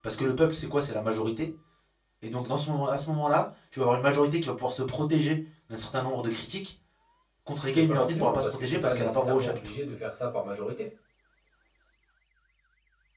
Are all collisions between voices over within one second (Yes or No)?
No